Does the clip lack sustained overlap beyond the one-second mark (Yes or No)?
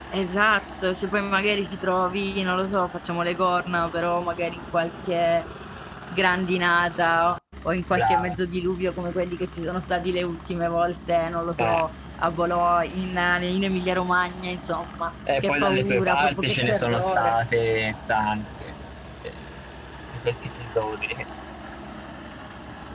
No